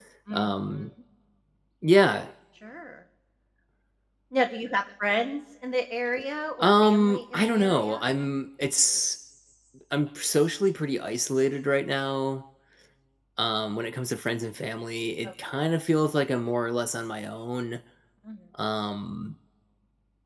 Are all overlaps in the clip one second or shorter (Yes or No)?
No